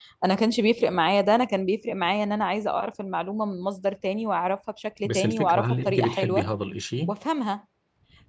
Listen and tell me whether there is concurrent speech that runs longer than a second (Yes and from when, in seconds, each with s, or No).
Yes, from 5.0 s